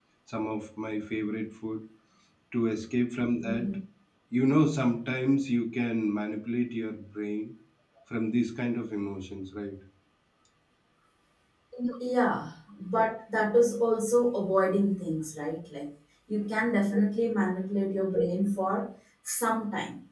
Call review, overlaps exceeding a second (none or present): none